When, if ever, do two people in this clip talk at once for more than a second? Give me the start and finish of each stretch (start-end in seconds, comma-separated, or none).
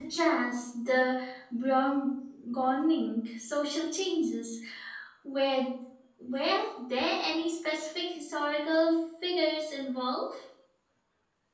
none